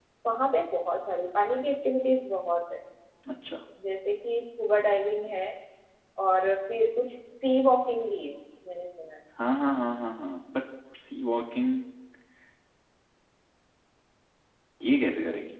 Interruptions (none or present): none